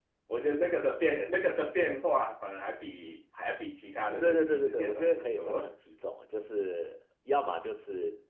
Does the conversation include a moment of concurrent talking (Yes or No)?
Yes